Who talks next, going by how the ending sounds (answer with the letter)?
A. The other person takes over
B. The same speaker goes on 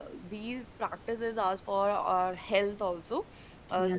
B